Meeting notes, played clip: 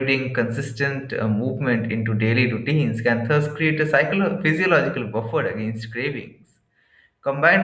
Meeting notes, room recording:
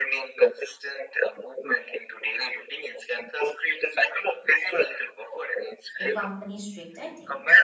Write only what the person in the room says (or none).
accompany strict dieting.